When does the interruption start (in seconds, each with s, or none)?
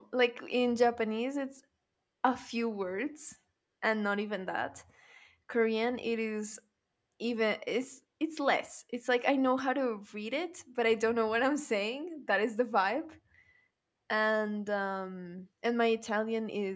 none